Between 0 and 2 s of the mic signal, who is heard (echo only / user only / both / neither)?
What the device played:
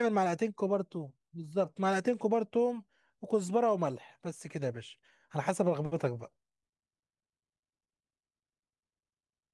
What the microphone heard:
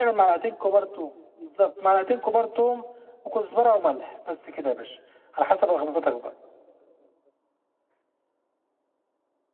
echo only